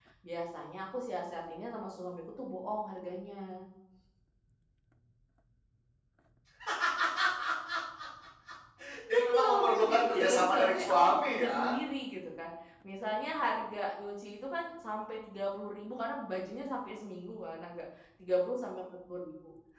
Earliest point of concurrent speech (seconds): 9.1 s

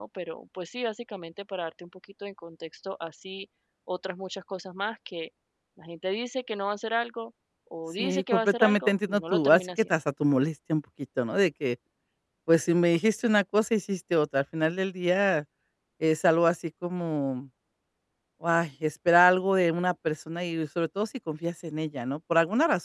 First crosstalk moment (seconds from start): 8.0 s

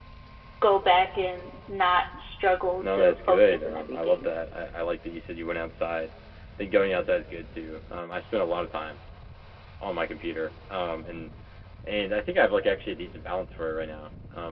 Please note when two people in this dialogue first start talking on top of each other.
2.7 s

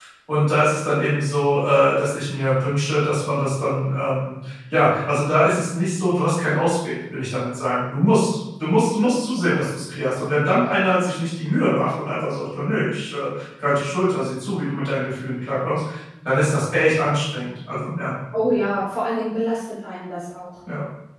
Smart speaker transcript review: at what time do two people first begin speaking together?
none

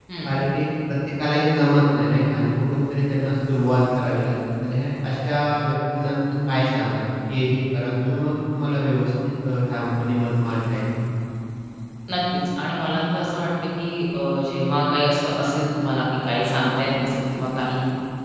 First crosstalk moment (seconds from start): none

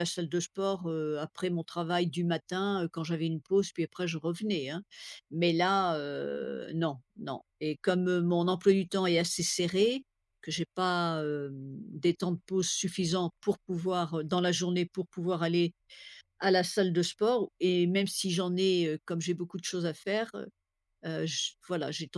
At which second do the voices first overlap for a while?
none

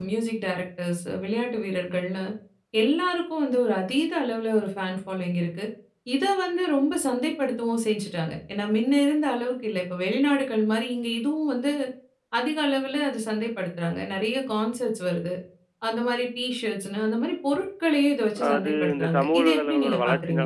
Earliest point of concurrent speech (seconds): 18.4 s

